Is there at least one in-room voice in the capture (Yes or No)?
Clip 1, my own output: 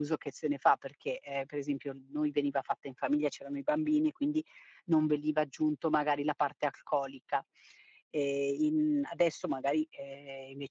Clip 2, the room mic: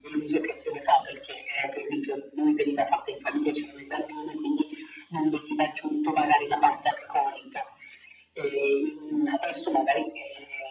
No